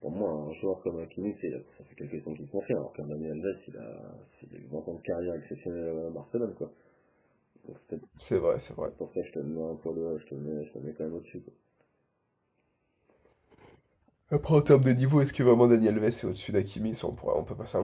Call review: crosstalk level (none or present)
none